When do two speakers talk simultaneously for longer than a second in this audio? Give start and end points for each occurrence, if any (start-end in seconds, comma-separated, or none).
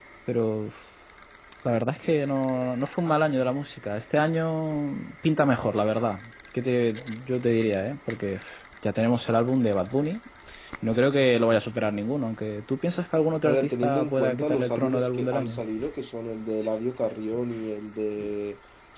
13.4-15.6